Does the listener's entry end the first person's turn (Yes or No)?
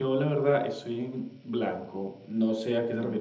No